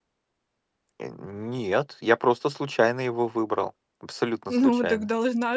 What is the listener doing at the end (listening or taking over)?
taking over